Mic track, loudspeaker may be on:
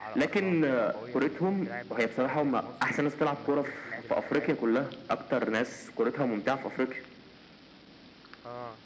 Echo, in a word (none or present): present